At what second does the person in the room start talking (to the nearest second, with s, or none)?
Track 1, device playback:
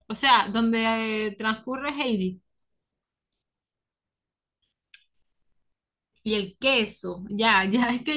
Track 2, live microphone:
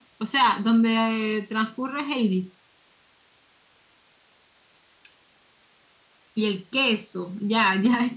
none